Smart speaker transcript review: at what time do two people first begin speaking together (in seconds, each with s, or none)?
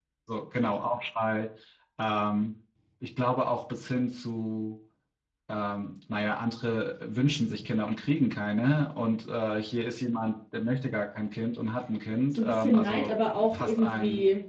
12.3 s